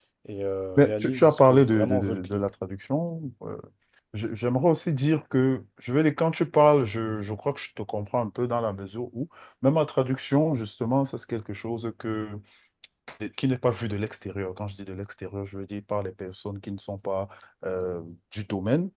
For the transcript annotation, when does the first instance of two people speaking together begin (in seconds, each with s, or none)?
0.8 s